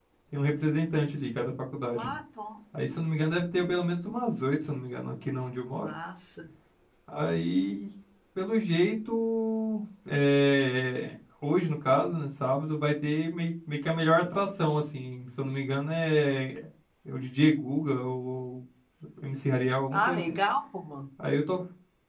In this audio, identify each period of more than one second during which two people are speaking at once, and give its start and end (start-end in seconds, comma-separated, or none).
none